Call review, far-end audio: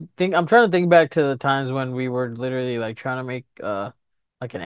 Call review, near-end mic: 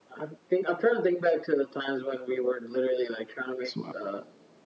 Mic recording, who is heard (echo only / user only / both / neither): both